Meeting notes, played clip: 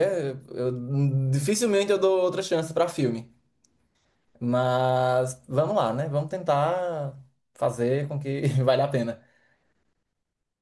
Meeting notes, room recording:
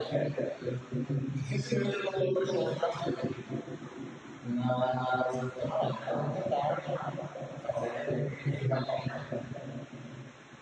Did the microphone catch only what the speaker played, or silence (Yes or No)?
Yes